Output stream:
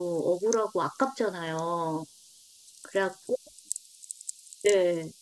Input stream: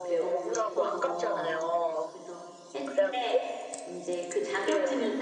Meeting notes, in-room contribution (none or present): present